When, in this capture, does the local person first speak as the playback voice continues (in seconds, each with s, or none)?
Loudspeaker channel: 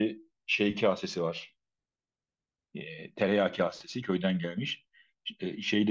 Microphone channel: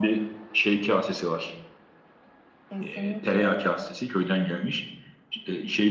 2.7 s